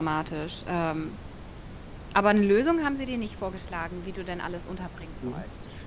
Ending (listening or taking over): taking over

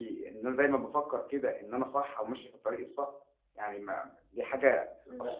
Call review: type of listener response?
listening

